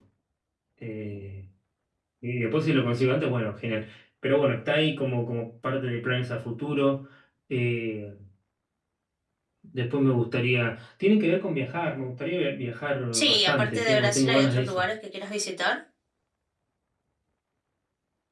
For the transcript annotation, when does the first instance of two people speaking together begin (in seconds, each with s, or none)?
13.1 s